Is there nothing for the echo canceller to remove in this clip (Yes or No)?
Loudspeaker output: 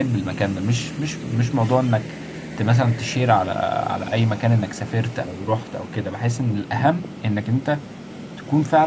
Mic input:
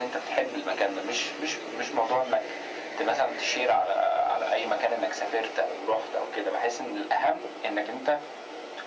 No